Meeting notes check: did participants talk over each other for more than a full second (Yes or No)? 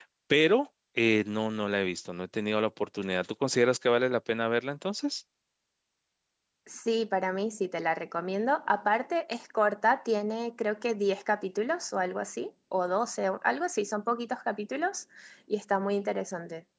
No